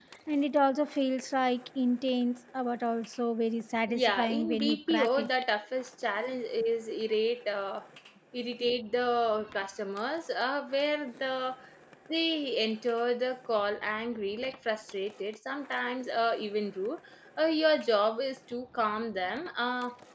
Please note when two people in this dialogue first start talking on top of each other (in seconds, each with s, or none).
3.9 s